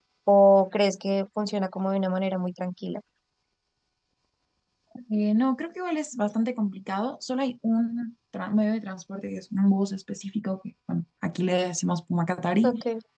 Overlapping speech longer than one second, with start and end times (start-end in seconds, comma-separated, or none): none